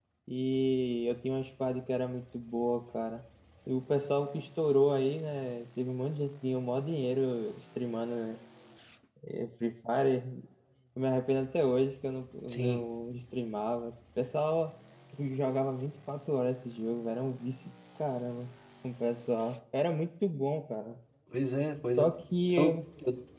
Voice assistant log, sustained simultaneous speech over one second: none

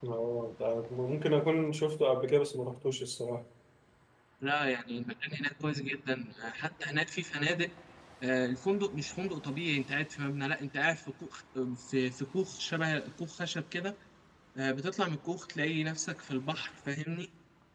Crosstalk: none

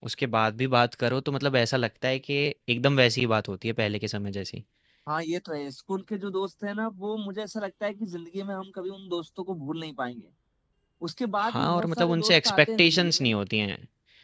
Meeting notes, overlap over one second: present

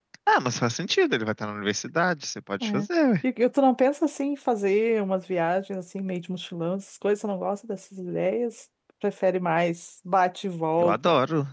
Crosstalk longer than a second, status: none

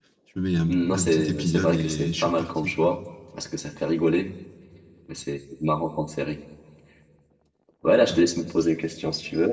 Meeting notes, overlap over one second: present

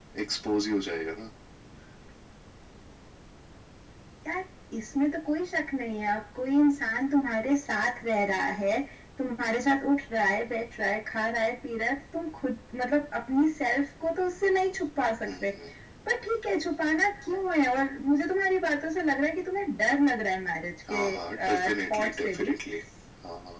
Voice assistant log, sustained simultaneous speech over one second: present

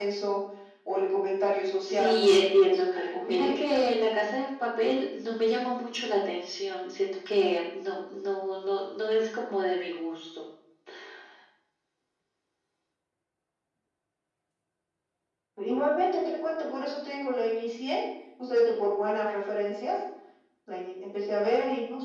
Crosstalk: present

